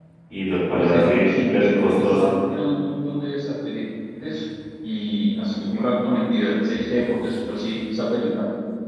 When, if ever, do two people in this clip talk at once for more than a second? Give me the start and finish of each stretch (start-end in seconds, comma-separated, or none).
0.8-2.3